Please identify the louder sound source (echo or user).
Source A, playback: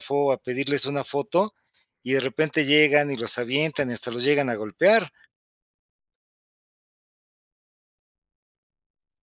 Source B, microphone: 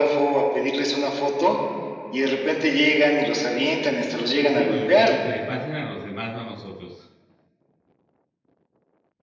echo